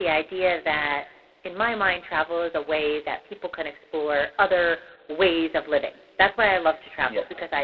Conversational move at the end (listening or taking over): listening